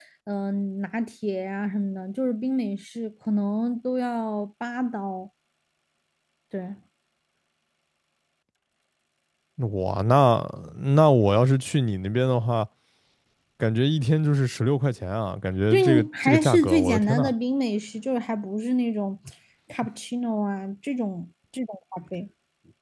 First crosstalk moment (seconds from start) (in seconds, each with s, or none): 15.7 s